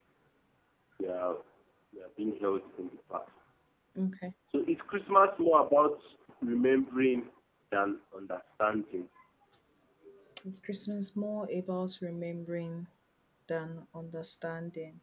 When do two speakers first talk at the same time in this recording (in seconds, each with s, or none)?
none